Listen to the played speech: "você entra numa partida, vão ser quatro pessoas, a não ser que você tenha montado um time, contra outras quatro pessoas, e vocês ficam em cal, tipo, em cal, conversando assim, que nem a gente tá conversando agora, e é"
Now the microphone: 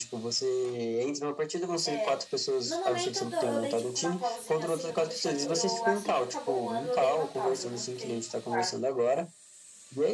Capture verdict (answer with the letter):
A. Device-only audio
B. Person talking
B